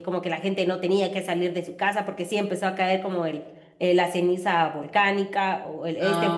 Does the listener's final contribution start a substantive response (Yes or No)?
No